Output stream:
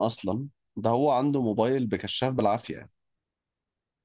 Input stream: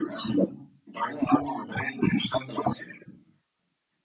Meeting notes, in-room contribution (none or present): none